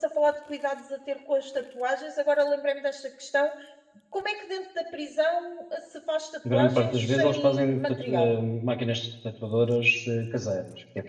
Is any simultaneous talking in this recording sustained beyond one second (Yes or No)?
Yes